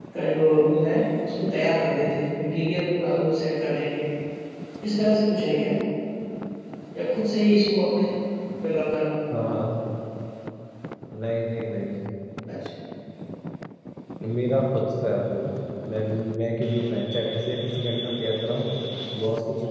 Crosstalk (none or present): none